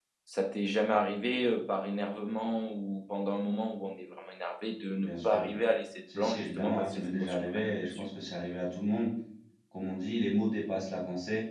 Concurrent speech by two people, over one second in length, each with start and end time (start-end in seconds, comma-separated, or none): 6.2-8.1